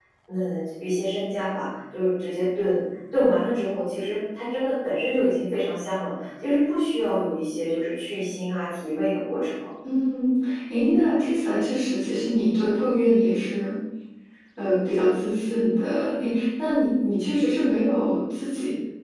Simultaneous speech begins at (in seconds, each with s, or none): none